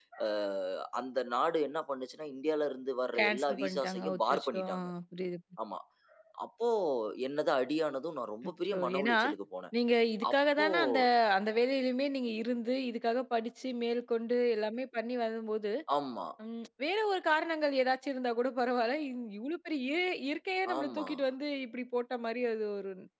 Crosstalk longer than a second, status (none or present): present